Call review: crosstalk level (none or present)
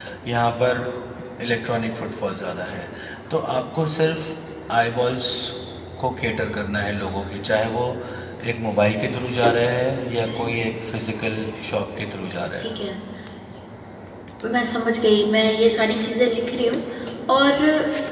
none